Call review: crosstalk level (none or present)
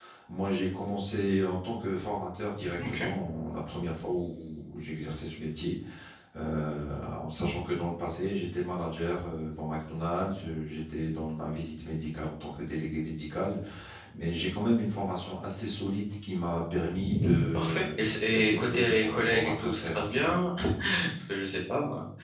present